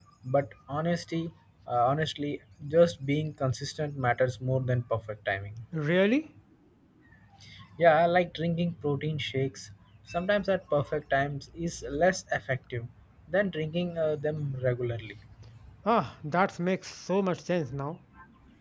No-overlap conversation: Yes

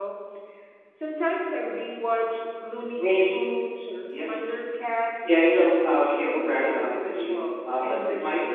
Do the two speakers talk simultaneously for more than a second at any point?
Yes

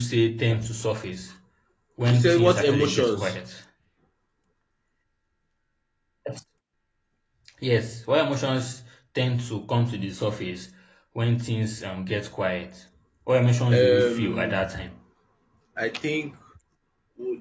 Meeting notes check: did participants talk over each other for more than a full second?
Yes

